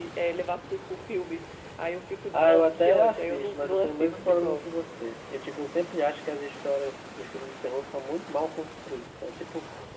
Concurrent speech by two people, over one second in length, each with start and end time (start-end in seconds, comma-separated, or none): 2.3-4.6